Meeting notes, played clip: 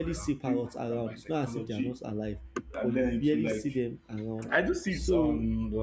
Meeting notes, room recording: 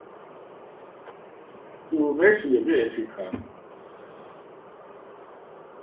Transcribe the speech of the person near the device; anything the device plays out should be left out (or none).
So very soon you'll be electric car.